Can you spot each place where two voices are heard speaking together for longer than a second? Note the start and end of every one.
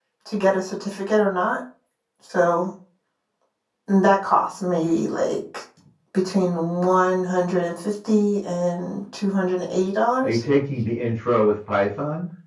none

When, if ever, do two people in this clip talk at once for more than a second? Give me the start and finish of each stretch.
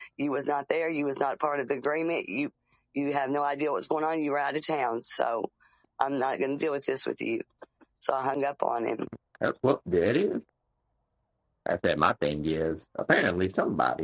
none

